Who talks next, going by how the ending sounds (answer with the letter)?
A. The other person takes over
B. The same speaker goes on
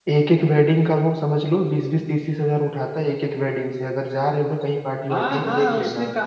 A